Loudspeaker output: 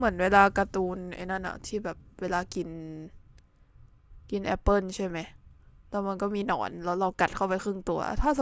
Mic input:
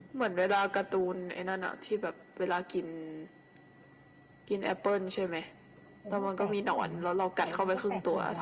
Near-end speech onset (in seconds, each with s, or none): 6.1 s